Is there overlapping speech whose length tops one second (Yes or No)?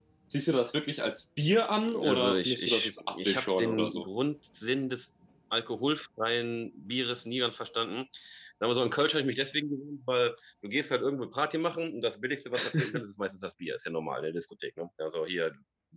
Yes